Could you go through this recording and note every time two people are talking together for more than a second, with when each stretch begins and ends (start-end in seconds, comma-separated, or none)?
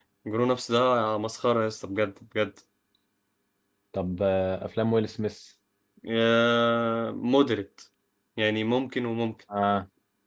none